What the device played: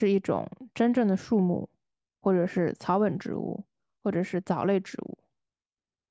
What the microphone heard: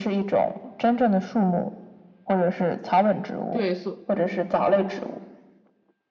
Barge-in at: 3.5 s

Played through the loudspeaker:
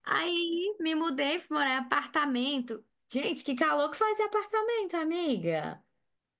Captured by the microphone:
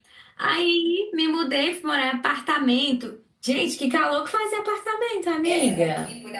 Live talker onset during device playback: 5.4 s

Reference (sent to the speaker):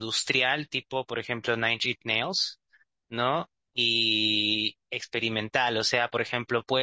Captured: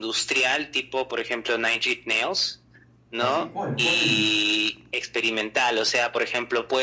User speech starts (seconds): 3.2 s

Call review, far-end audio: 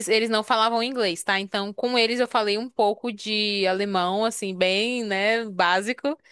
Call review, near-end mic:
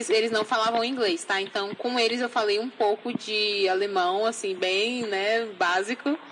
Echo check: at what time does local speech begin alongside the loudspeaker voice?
none

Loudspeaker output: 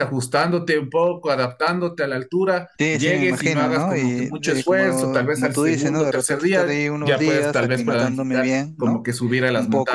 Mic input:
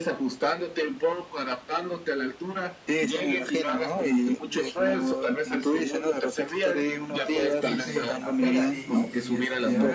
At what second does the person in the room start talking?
7.4 s

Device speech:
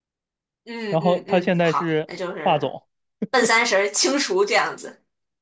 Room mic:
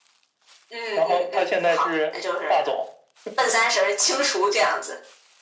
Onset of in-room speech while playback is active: none

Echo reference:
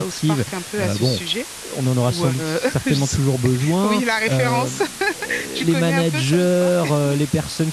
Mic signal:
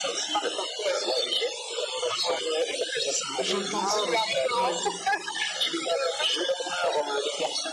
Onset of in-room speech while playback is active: 3.4 s

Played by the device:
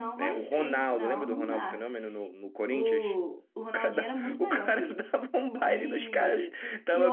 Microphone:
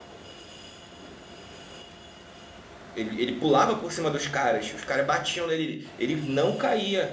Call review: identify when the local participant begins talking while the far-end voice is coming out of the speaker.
2.9 s

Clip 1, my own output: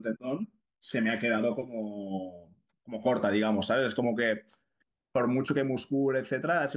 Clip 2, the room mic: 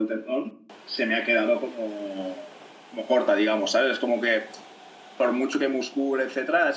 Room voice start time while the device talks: none

